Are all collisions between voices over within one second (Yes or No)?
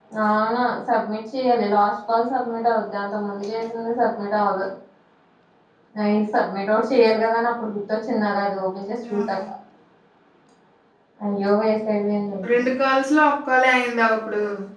Yes